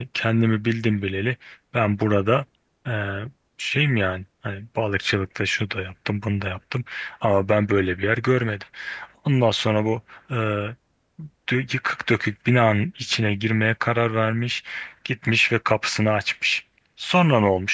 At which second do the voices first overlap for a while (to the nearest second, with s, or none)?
none